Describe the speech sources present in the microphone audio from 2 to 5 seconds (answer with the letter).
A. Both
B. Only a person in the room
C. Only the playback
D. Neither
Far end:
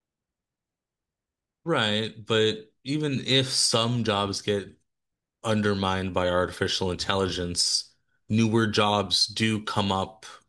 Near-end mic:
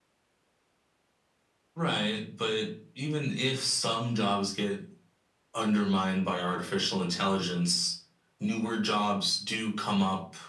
C